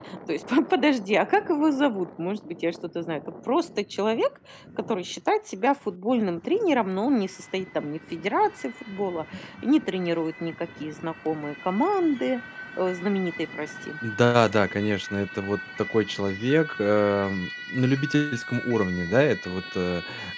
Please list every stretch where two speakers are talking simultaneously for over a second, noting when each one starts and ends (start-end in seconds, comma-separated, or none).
none